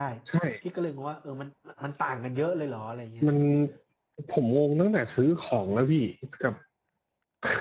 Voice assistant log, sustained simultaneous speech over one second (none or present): none